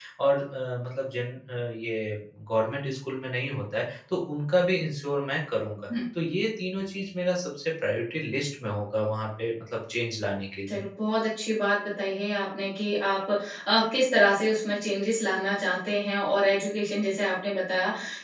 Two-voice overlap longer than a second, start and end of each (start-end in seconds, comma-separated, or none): none